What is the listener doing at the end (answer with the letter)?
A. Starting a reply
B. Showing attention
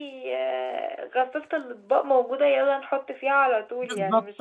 A